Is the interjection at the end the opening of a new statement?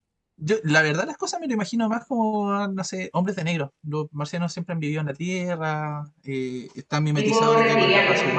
No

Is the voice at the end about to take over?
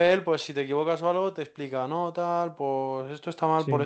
No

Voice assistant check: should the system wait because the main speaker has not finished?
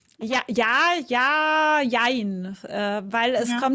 Yes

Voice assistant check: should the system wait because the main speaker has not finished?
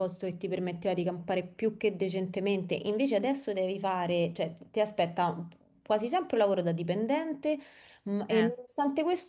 Yes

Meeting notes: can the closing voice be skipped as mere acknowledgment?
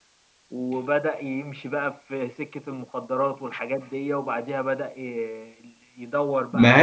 Yes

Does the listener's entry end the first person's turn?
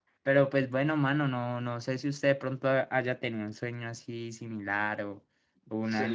Yes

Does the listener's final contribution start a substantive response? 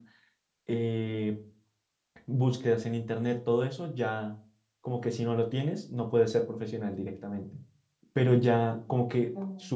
No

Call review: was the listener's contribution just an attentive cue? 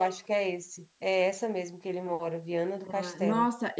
No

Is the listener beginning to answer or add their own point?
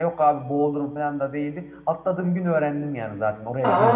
No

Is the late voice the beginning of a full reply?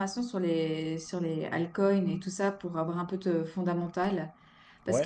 No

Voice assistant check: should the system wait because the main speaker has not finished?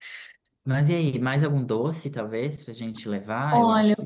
No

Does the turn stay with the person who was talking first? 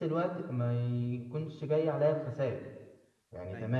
Yes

